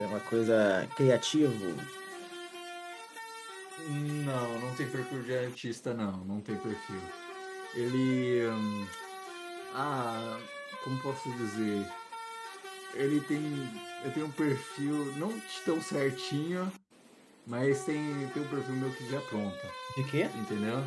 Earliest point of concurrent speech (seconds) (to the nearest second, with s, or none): none